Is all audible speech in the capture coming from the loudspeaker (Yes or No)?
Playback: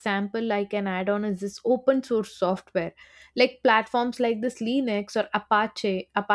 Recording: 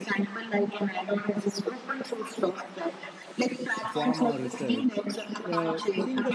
No